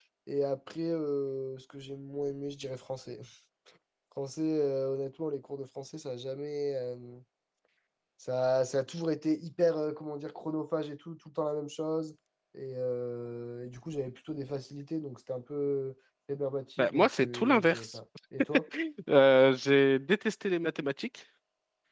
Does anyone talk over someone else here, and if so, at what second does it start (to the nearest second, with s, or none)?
17 s